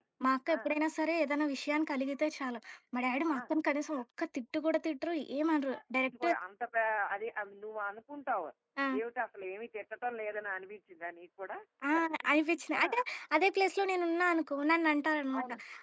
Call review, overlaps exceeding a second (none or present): none